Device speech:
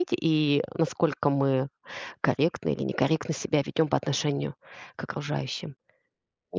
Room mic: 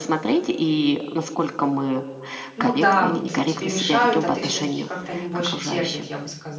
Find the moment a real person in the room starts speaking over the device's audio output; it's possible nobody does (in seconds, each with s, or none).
2.5 s